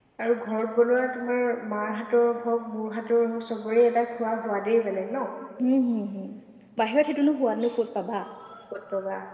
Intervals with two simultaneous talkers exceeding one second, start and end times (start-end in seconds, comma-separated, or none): none